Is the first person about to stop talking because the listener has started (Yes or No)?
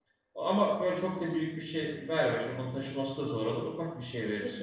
Yes